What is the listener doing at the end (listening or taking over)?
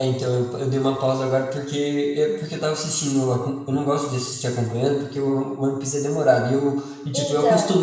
listening